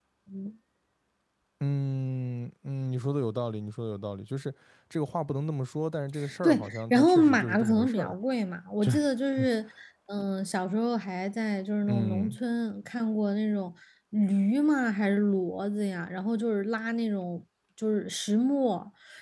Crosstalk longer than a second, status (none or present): present